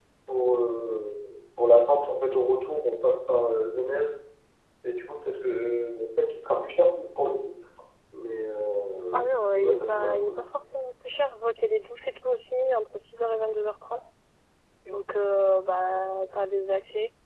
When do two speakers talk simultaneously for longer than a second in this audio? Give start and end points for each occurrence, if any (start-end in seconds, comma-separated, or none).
9.1-10.4